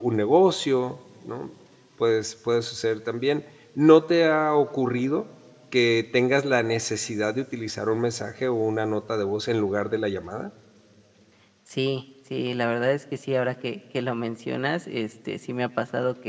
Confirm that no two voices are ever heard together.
Yes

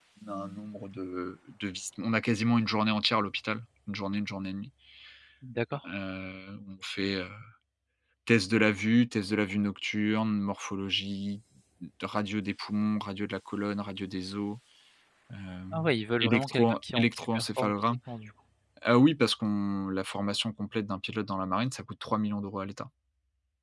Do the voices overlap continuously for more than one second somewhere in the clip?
Yes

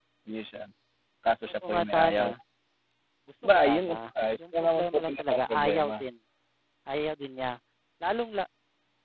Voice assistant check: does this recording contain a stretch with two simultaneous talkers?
Yes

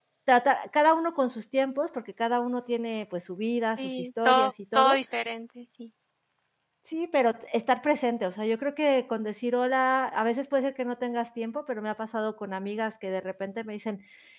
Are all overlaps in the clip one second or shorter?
No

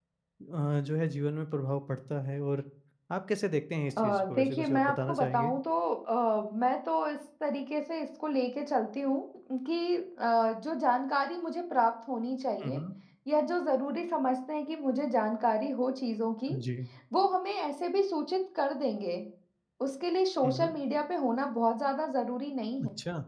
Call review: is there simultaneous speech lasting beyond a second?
Yes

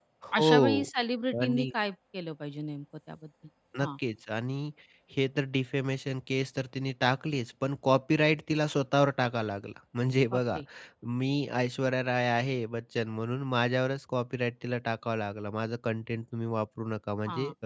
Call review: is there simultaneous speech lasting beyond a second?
No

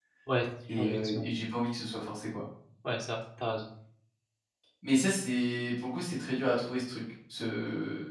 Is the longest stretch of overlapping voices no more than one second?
Yes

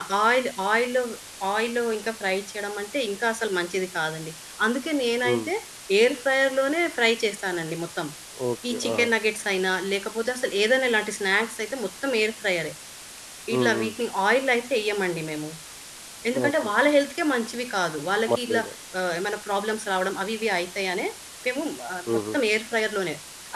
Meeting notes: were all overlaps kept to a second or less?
Yes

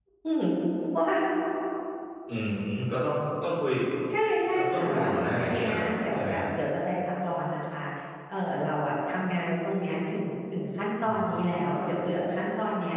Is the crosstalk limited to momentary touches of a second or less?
No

